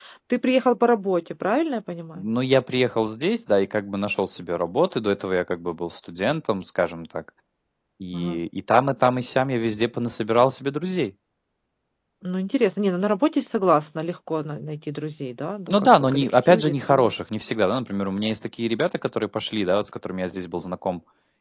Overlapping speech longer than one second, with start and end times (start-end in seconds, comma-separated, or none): 15.7-17.1